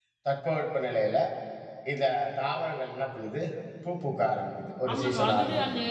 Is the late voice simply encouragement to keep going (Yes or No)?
No